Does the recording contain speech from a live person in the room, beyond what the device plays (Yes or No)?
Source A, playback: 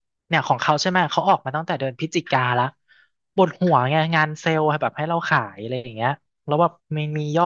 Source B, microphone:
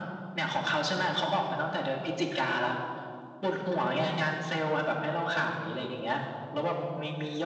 No